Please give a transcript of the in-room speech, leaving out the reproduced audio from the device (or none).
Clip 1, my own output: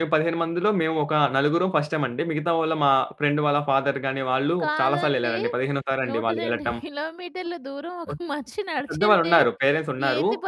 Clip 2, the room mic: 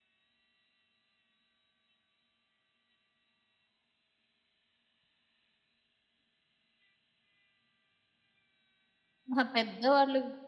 ఆహా! పెద్దవాళ్ళు